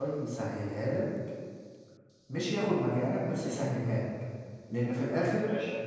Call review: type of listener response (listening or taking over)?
listening